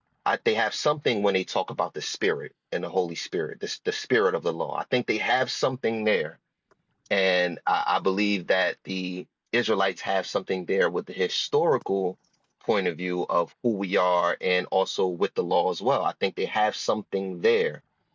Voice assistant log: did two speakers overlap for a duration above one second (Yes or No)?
No